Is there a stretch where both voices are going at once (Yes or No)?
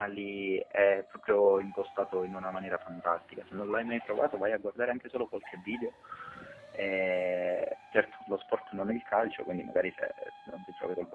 No